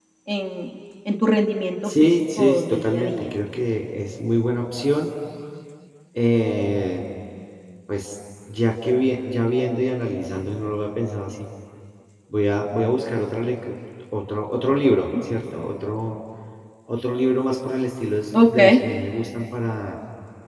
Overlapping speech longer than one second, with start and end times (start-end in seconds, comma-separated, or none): 1.8-3.2